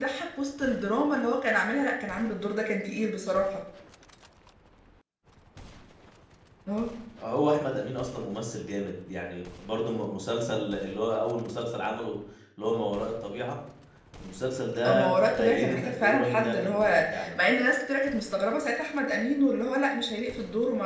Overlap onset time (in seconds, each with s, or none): 14.8 s